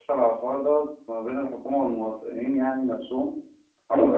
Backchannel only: No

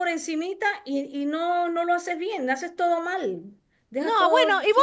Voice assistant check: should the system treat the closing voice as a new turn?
Yes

